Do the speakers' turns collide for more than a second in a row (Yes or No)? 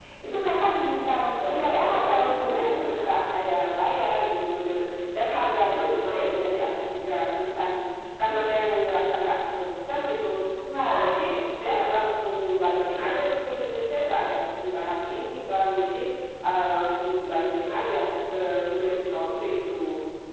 Yes